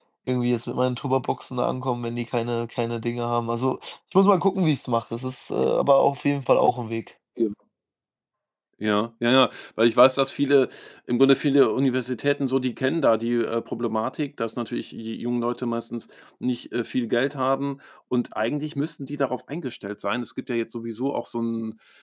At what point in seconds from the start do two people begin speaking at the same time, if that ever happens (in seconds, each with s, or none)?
none